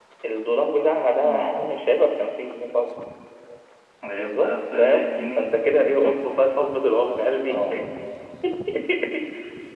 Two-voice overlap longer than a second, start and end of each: 4.1-5.5

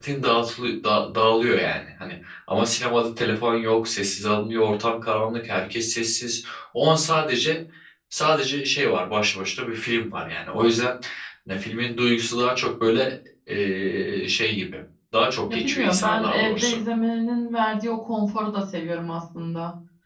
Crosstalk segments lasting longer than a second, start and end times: 15.5-16.8

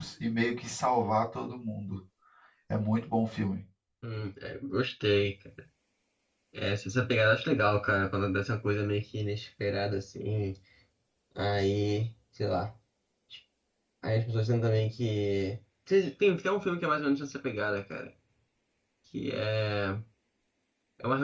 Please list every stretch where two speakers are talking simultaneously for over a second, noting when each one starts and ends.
none

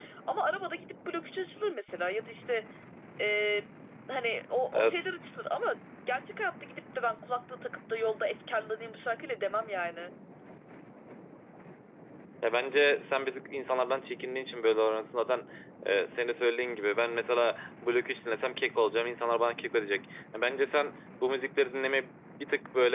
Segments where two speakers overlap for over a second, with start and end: none

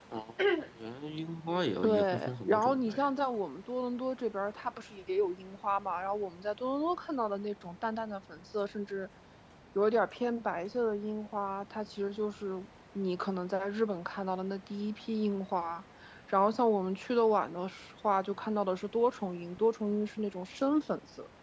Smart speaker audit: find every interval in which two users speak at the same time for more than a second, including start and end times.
1.8-3.1

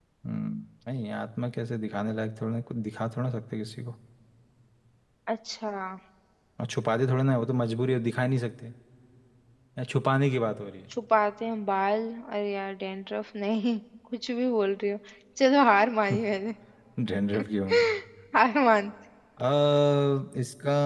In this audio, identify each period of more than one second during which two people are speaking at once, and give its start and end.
none

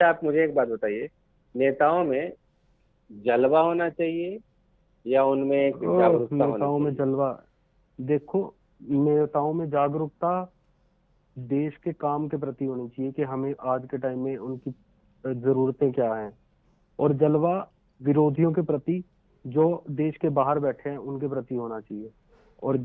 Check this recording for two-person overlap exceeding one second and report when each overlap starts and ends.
5.7-7.0

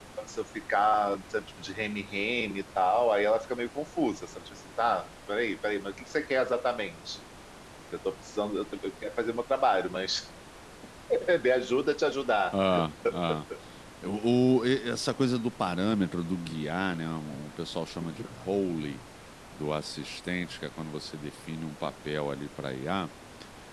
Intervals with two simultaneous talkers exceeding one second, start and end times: none

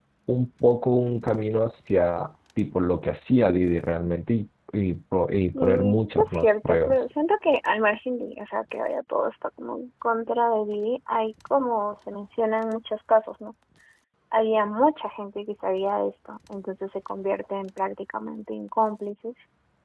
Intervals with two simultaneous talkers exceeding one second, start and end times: 5.6-7.0

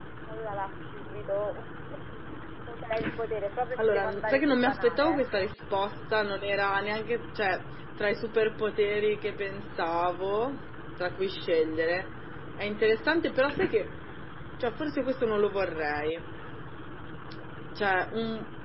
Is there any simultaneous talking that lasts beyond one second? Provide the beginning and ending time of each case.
3.8-5.5

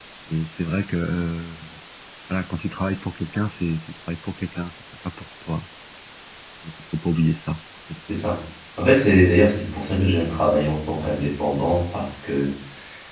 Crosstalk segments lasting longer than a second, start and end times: none

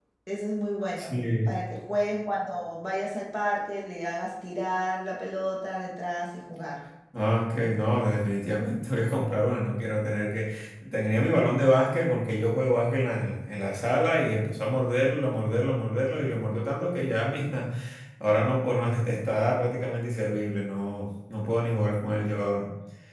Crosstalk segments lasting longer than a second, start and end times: none

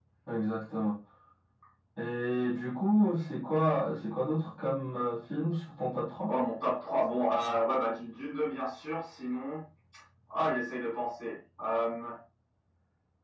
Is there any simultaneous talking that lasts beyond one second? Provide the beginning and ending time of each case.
none

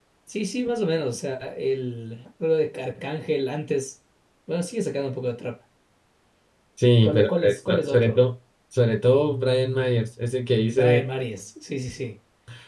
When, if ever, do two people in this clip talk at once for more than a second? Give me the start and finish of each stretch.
7.0-8.2

